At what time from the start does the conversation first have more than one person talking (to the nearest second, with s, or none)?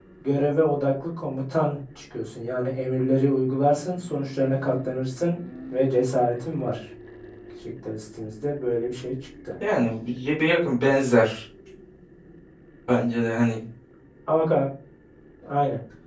none